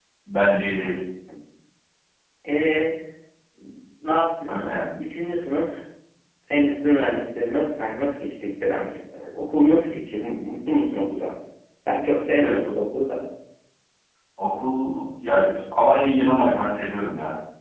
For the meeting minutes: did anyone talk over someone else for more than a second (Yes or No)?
No